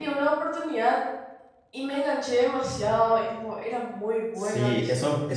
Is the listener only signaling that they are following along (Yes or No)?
No